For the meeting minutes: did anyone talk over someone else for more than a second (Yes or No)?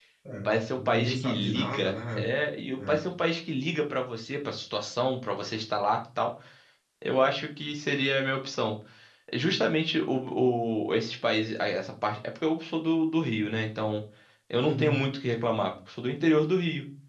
Yes